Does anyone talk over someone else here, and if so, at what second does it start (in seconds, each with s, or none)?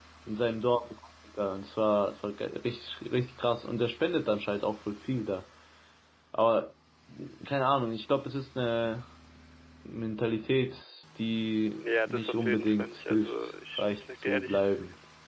11.8 s